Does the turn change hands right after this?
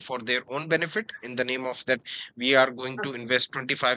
No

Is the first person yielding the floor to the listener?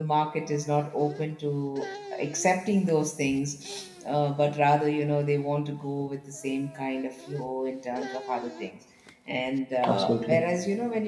No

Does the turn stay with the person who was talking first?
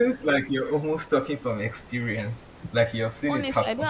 No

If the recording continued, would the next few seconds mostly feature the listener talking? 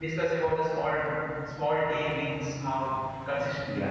Yes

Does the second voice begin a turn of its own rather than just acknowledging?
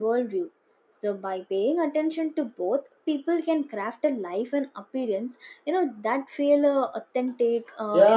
Yes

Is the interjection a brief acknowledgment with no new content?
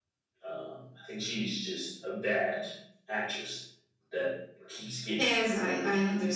No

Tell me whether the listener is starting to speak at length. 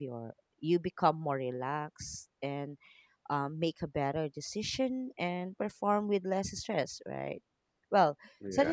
No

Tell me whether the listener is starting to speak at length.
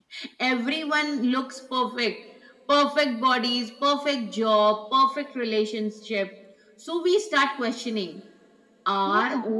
No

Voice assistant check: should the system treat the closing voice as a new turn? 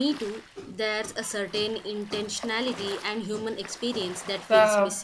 Yes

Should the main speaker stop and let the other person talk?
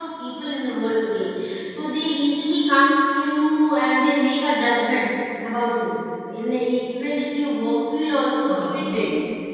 Yes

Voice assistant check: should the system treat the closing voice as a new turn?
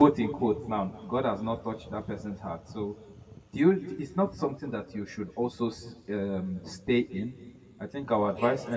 No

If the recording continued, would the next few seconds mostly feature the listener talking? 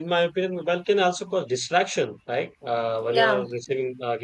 No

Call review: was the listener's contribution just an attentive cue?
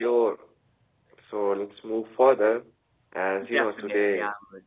No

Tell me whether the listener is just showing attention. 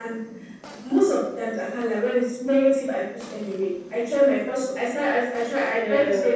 Yes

